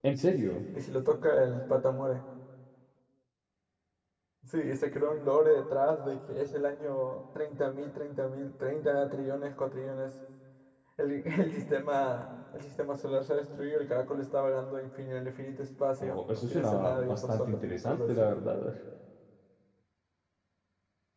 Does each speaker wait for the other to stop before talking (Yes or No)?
No